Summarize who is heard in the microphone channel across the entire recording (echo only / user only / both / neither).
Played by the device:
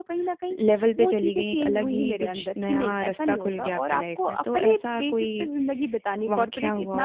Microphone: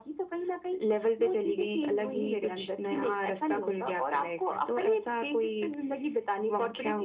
echo only